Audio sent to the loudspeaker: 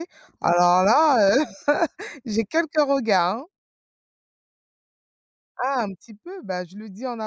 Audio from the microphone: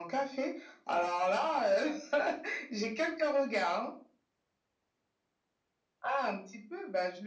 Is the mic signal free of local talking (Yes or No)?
Yes